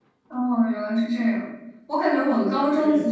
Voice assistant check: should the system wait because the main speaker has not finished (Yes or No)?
Yes